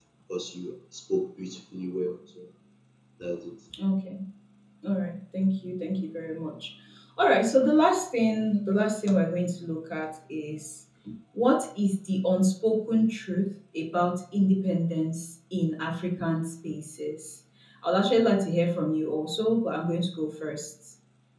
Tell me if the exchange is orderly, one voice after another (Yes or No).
Yes